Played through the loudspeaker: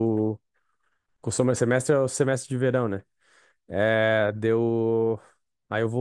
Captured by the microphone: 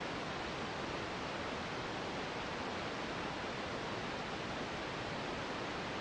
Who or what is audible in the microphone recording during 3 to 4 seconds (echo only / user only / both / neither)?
neither